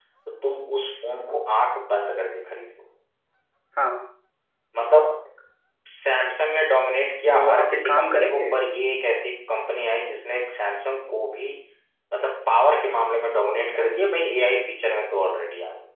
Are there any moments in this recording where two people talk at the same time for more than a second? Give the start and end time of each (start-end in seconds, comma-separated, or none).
7.3-8.5